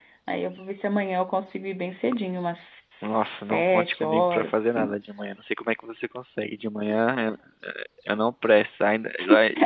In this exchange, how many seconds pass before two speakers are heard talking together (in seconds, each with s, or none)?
3.0 s